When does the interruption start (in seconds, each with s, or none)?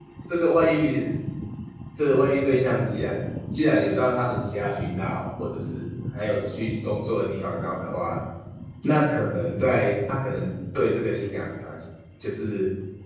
none